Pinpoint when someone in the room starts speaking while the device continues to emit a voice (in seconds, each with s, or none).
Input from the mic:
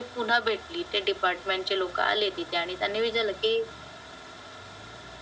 none